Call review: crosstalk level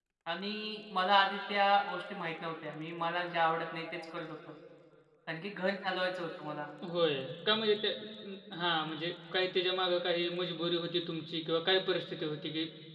none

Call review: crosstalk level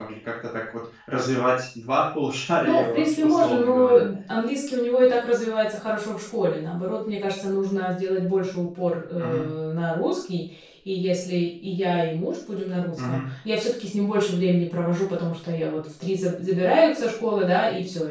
present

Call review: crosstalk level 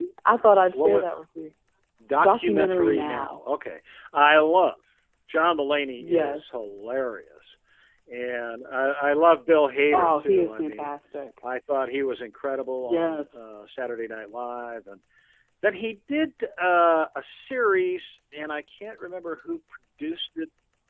present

